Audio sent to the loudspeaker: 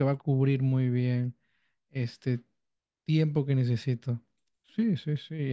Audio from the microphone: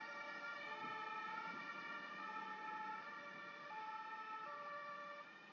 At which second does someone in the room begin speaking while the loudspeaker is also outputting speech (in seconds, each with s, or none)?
none